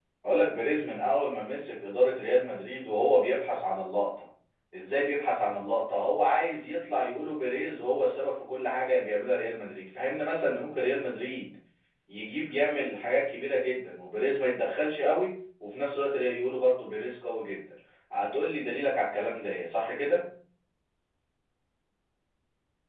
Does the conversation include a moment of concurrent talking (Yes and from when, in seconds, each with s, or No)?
No